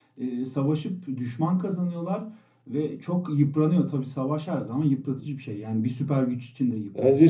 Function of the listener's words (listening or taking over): taking over